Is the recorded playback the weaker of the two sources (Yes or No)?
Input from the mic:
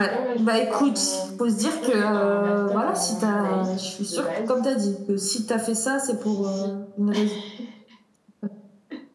Yes